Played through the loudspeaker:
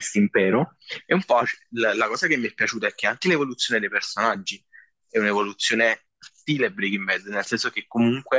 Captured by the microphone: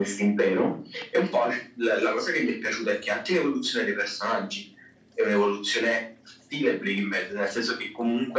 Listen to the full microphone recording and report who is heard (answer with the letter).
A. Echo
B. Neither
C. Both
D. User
A